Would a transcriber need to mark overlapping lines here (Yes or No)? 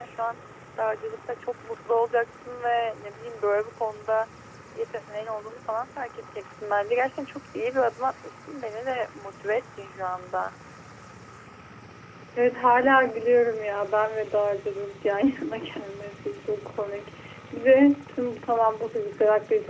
No